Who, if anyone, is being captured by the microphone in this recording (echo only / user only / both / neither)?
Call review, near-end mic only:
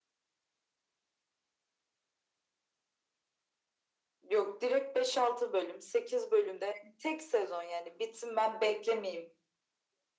echo only